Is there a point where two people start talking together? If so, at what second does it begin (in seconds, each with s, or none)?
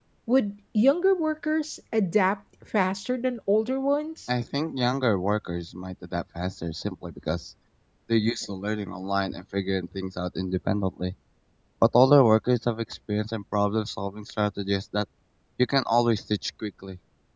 none